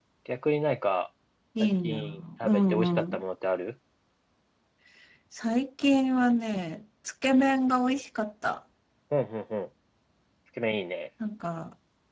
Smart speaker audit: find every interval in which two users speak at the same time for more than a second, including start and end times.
1.6-3.2

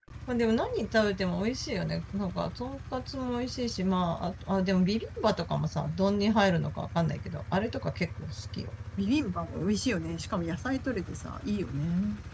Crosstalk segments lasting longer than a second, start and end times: none

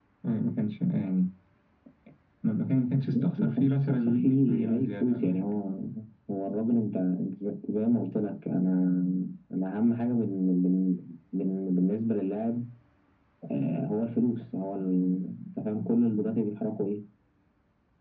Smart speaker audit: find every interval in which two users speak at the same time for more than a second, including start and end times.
3.1-5.5

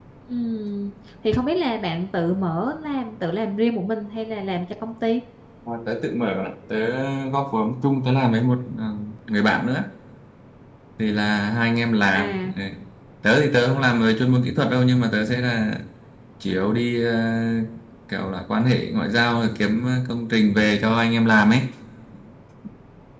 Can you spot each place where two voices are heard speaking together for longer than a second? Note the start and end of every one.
none

